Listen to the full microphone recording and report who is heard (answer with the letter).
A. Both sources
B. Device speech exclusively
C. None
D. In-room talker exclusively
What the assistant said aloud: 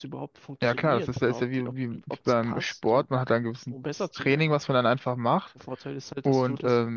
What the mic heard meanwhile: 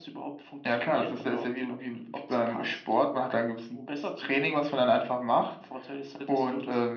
B